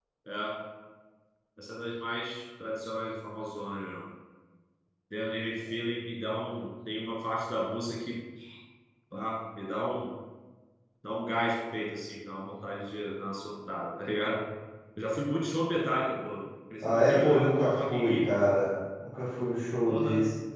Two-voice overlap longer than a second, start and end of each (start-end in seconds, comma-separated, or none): 16.8-18.3